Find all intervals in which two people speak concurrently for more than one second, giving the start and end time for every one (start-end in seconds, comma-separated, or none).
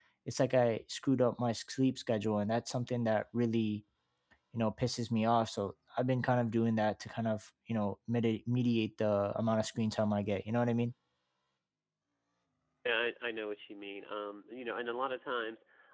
none